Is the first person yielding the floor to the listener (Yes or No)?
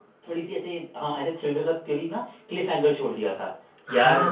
No